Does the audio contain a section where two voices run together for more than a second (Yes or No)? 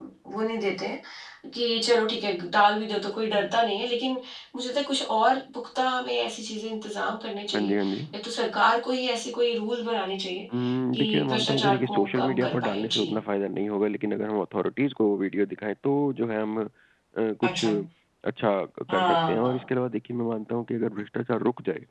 Yes